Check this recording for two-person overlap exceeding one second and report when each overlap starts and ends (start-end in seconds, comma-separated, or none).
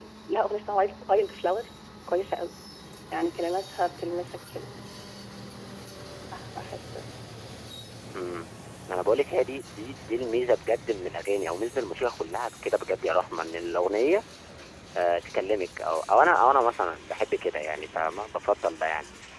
none